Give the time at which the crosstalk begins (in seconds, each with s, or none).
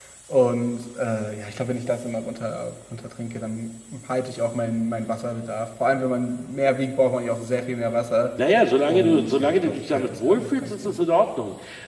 8.8 s